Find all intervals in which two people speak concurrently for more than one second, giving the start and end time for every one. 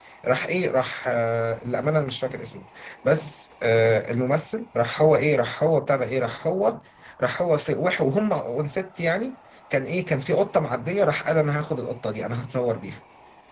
none

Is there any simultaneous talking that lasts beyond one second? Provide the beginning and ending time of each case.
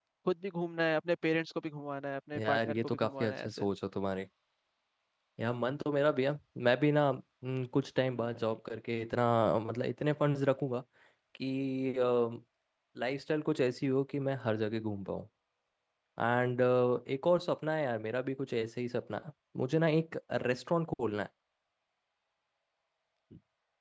2.4-3.6

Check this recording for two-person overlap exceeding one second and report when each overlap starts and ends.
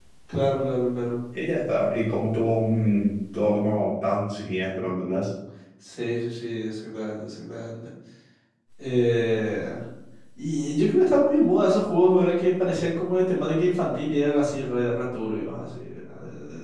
none

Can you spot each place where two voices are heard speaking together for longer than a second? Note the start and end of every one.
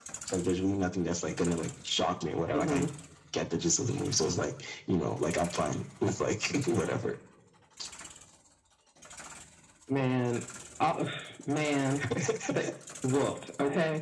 none

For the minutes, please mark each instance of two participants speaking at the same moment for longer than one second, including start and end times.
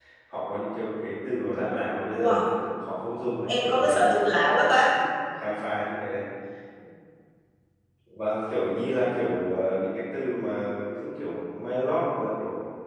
3.5-5.0

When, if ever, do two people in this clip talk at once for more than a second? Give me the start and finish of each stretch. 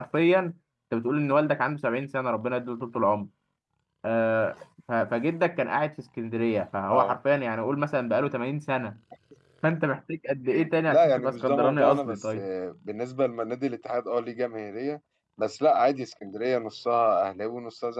10.9-12.4

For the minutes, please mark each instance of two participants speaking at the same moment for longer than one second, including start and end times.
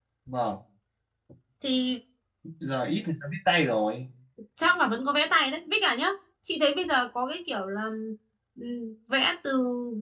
none

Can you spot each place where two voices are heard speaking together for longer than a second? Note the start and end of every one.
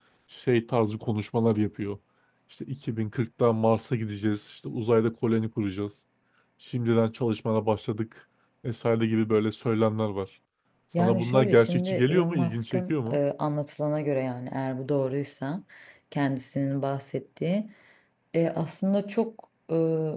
11.0-13.2

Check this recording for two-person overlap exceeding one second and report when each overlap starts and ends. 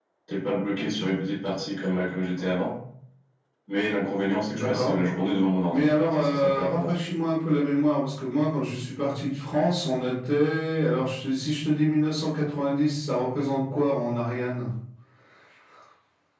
5.7-6.9

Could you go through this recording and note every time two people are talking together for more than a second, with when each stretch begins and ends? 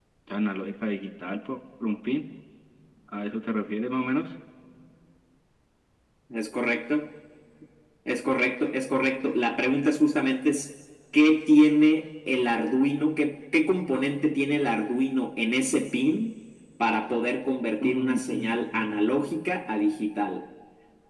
17.8-19.0

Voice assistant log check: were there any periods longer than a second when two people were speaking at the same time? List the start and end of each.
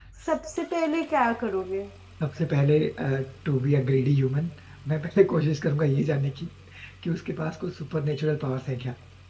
none

